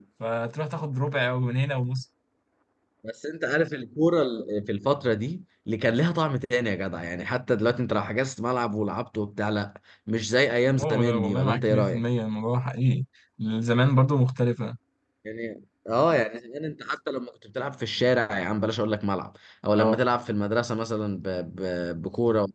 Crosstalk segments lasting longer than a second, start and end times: 10.8-12.0

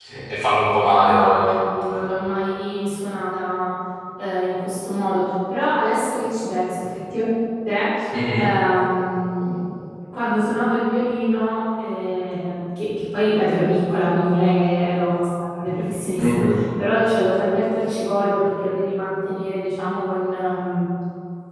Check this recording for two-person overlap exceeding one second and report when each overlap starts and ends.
none

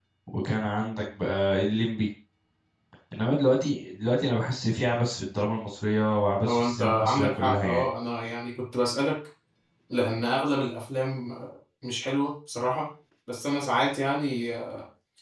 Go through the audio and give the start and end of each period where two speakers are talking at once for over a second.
6.5-7.8

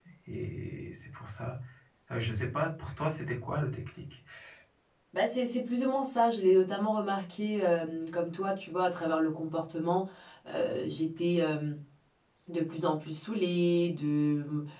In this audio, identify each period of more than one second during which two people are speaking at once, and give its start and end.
none

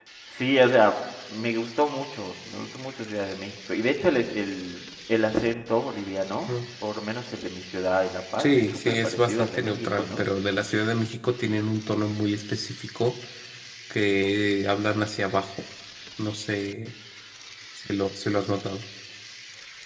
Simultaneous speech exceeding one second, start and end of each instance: 8.4-10.2

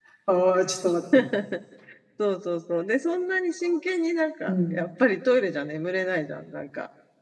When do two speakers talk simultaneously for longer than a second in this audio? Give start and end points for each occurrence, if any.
none

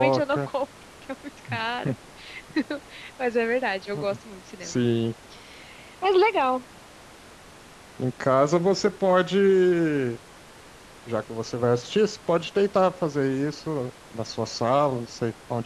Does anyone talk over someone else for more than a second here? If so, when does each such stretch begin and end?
none

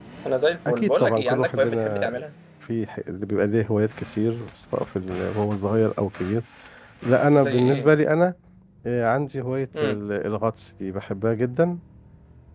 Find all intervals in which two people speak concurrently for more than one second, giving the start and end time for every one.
0.7-2.1

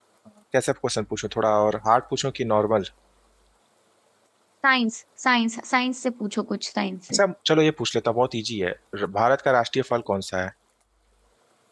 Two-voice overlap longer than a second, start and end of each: none

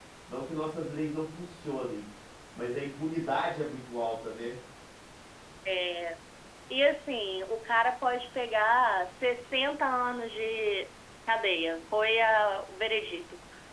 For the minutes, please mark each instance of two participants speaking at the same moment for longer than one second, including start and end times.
none

